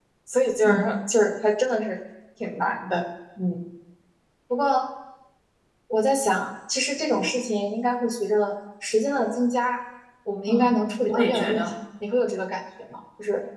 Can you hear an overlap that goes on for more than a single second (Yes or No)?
Yes